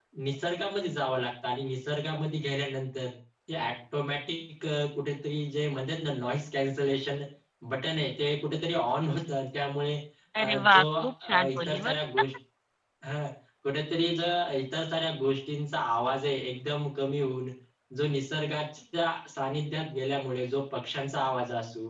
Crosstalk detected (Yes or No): Yes